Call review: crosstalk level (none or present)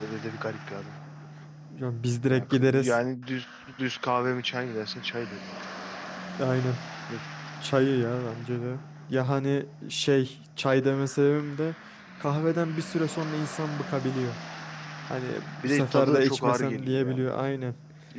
present